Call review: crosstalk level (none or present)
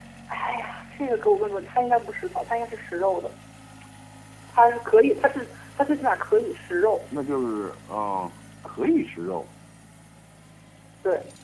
none